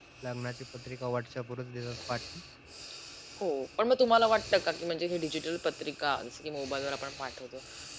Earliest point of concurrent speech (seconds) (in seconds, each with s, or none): none